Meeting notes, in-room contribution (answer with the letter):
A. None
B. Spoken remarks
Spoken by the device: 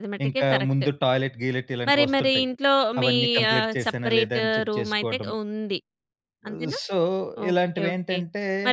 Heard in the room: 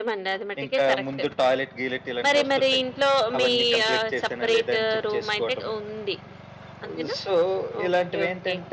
A